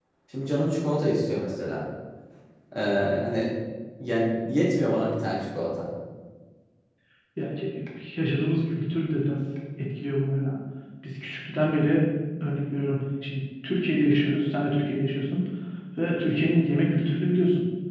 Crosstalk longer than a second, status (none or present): none